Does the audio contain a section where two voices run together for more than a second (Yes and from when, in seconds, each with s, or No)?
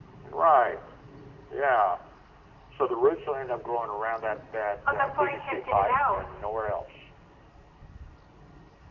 Yes, from 4.8 s